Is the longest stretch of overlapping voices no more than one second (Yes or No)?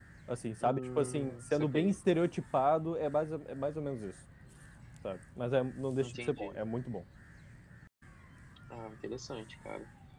No